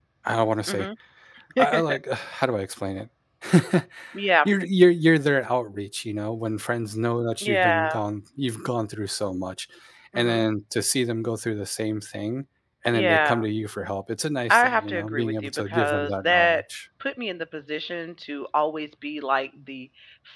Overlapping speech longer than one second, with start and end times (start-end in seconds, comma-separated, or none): 14.5-16.6